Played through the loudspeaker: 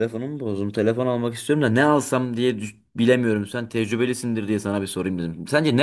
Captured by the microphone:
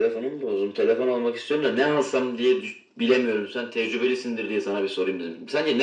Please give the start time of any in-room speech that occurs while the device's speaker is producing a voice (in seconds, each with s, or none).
none